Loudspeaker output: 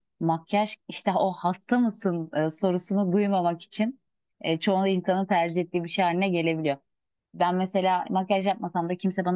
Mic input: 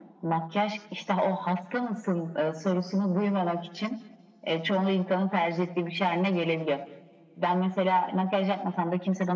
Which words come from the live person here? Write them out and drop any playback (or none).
none